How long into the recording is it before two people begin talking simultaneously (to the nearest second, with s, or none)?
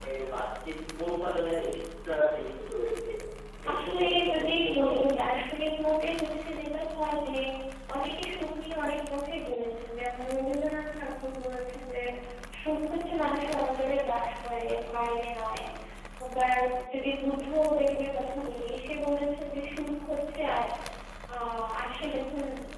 4 s